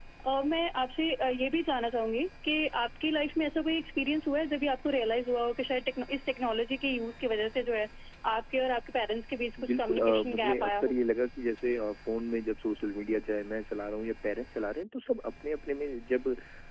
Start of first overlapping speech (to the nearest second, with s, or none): 10 s